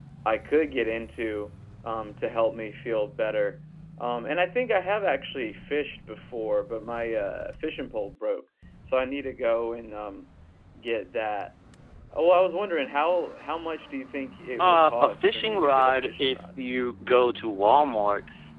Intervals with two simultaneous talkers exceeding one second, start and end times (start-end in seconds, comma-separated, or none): 14.6-16.4